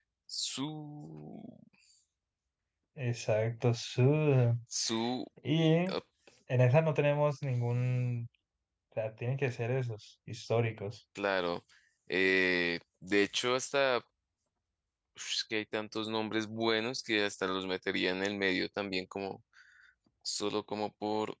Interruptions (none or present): none